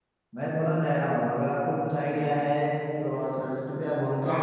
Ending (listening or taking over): taking over